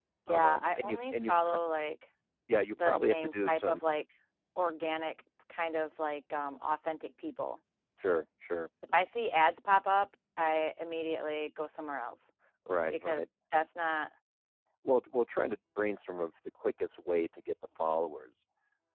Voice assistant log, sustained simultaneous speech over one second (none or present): present